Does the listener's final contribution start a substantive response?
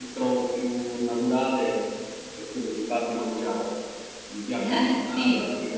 Yes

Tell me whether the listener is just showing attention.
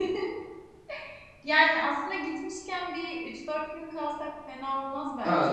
No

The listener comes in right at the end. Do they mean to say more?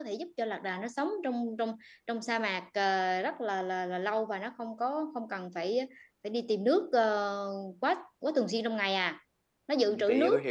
Yes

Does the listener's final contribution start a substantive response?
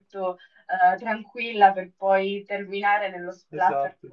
No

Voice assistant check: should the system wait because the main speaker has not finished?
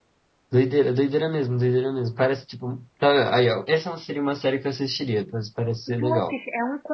No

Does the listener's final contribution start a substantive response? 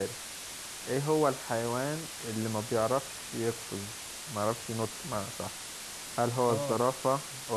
No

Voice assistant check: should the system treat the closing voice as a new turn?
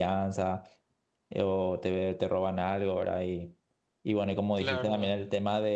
No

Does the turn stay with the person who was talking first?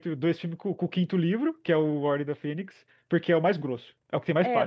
No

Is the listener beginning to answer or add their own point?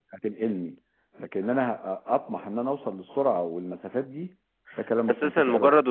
Yes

